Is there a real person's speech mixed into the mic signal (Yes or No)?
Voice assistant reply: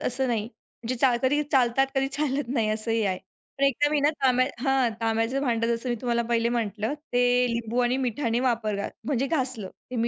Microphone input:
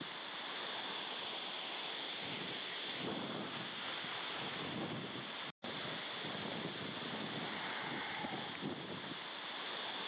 No